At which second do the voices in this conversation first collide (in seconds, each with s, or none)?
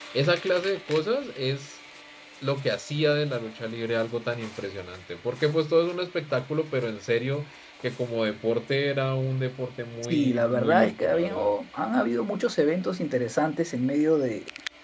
10.0 s